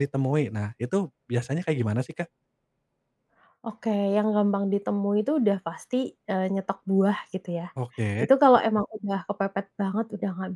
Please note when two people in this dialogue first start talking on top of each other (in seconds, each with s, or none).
none